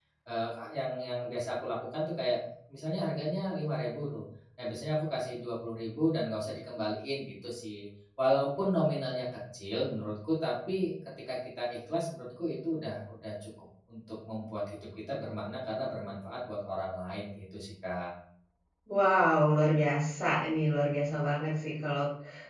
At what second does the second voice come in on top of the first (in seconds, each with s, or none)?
none